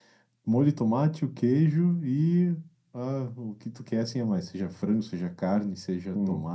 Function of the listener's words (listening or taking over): listening